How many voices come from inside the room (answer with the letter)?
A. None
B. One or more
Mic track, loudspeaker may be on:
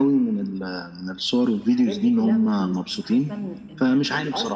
B